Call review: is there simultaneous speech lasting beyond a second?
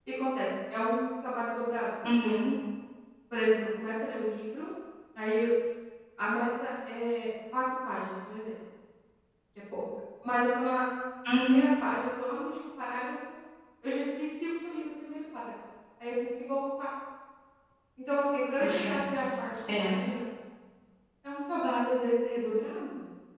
No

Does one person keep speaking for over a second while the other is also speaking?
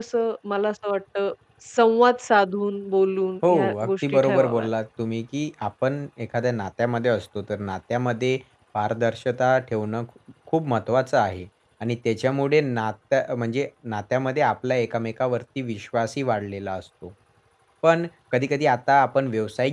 Yes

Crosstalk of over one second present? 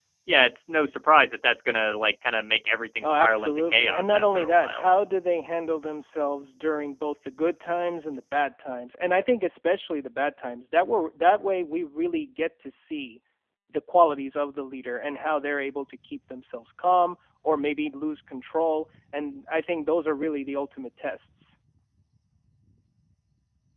Yes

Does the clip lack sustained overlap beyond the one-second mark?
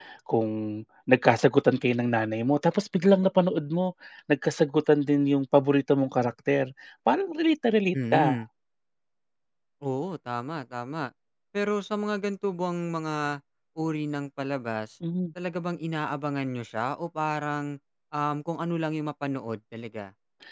Yes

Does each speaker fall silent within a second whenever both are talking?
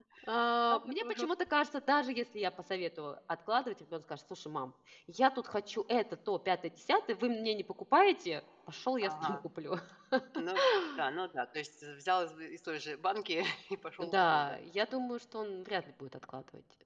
Yes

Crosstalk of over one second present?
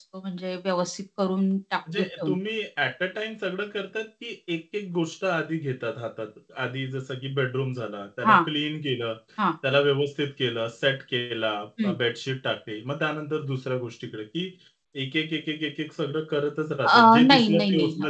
Yes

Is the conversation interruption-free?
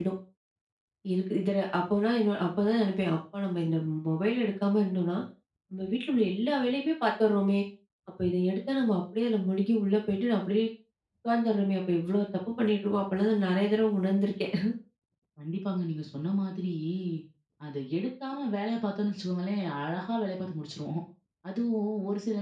Yes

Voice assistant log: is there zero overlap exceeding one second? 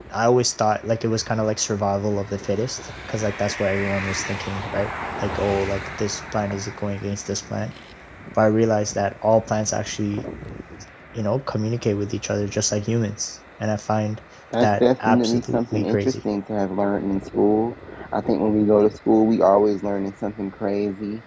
No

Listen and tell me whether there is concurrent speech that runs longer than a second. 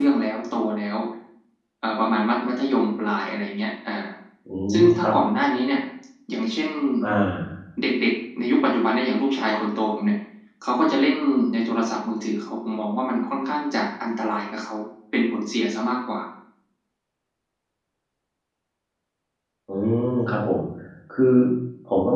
No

